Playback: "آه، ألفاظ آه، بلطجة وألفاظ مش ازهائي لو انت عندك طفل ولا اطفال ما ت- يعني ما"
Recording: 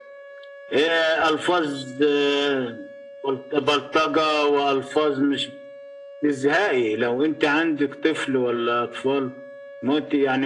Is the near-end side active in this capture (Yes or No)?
No